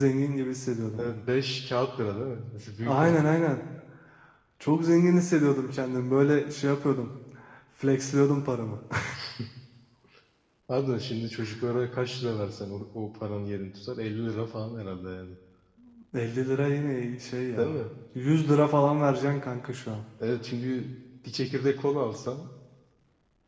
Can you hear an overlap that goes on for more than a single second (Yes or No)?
No